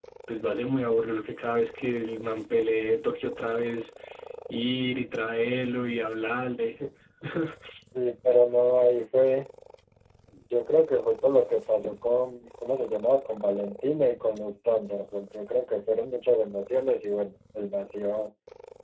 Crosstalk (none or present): none